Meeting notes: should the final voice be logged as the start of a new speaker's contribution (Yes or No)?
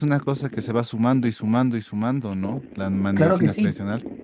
Yes